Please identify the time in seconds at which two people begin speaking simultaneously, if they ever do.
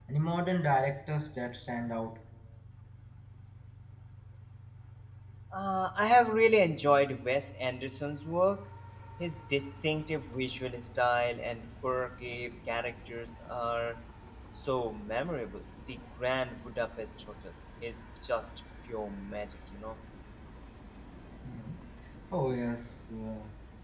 none

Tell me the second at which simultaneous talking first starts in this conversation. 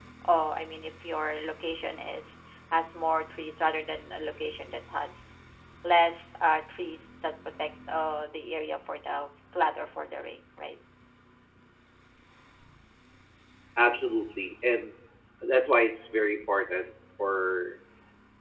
none

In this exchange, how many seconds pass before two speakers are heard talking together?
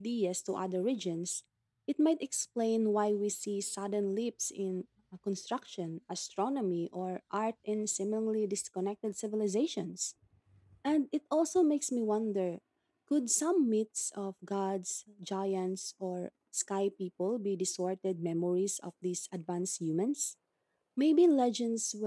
none

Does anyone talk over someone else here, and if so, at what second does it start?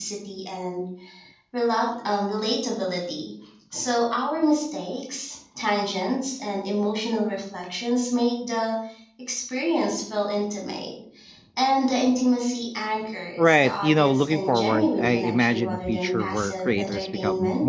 13.4 s

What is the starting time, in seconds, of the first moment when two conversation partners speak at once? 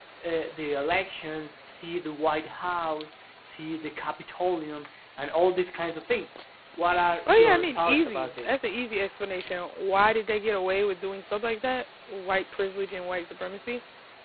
7.3 s

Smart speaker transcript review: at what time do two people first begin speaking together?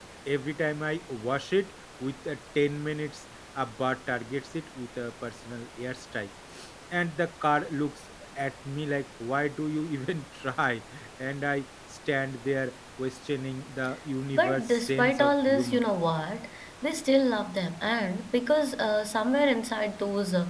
14.3 s

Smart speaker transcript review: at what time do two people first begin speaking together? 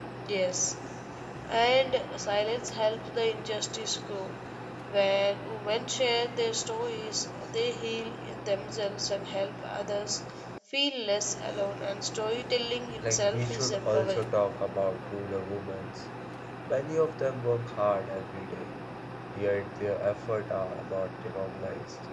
13.0 s

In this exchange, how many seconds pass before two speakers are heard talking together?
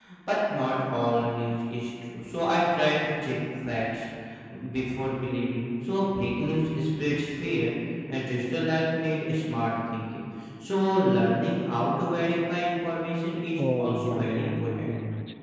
13.6 s

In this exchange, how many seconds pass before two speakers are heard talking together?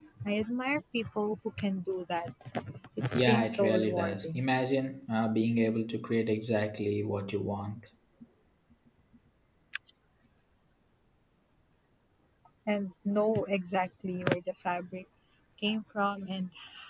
3.1 s

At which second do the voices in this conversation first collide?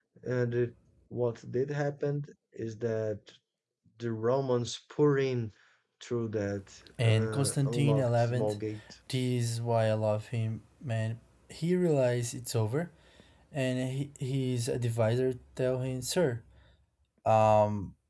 7.0 s

